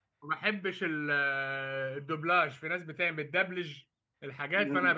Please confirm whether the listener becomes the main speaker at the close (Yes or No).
Yes